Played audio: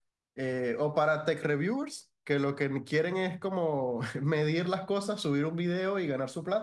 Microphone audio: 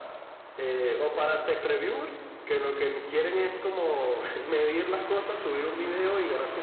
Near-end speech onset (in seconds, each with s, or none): none